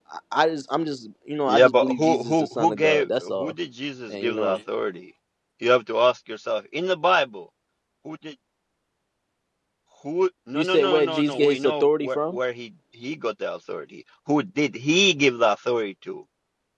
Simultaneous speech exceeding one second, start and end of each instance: 1.5-3.5, 10.5-12.4

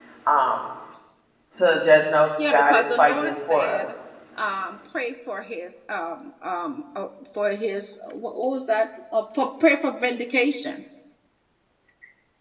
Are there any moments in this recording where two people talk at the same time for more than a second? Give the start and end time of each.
2.5-4.0

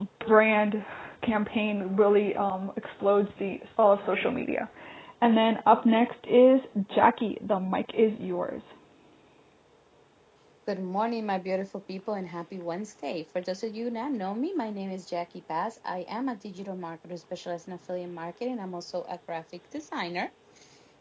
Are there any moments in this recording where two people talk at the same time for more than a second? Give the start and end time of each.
none

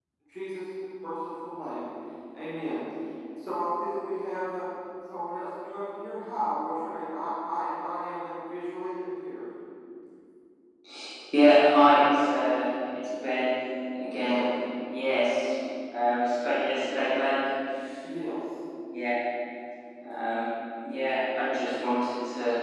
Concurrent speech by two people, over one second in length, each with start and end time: none

